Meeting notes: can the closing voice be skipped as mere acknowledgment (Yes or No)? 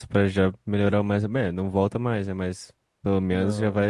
Yes